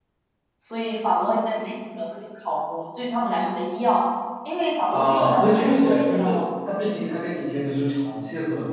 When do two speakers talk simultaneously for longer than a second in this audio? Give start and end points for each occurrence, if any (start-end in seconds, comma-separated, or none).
4.9-6.4